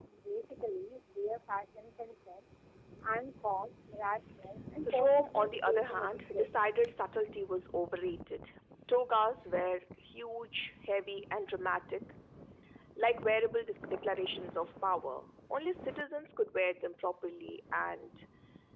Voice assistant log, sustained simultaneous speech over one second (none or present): present